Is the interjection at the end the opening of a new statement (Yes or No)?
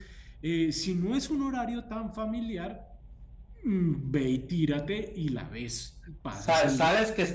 Yes